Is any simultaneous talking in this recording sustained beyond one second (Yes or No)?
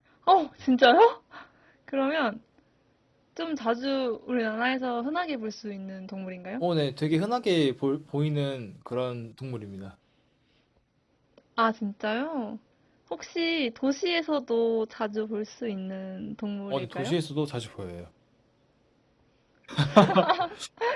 No